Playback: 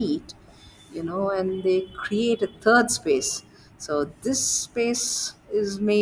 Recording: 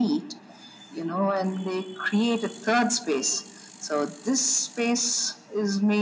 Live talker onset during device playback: none

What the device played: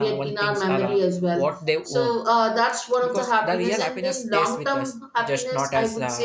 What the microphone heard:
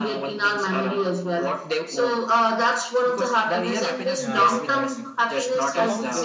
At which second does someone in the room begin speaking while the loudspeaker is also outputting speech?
4.1 s

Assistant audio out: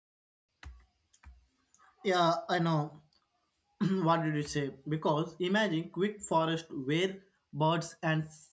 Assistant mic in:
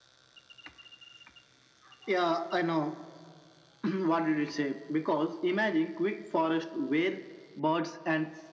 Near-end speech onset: none

